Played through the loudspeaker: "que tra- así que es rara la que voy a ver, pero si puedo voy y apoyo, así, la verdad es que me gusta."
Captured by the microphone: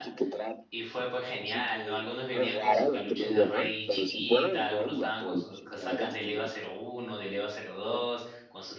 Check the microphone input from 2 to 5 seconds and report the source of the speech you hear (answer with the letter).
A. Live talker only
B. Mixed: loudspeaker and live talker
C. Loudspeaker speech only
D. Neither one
B